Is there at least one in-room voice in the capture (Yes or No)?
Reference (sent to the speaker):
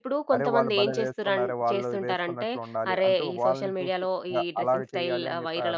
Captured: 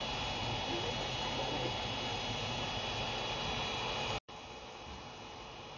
No